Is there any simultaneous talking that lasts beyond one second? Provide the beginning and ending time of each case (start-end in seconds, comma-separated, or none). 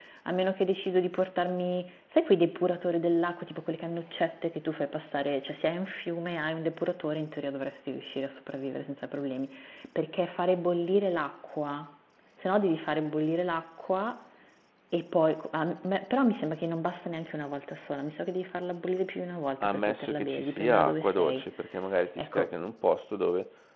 19.6-21.4